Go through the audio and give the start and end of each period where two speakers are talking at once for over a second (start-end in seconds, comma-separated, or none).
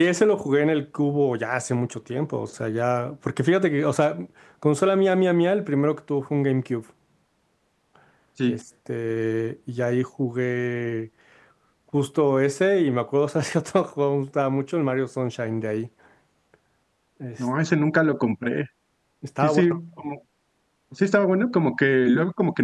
none